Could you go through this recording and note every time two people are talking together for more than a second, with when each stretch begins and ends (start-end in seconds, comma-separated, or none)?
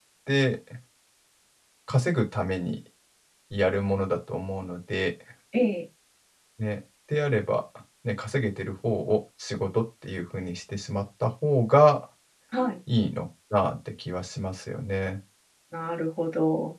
none